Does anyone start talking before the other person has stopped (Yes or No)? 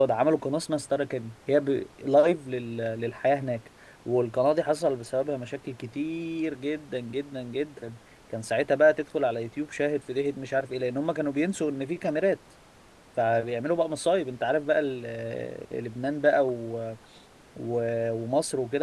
No